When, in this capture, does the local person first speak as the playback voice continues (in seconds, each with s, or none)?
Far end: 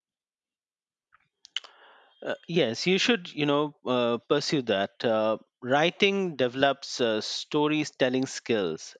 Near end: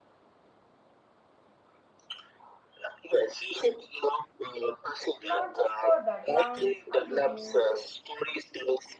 5.2 s